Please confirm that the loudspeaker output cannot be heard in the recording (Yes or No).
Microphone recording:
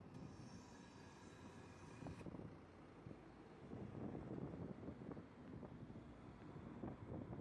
Yes